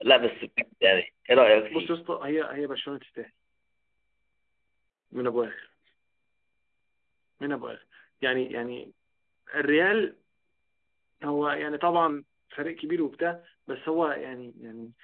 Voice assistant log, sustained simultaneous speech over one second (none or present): none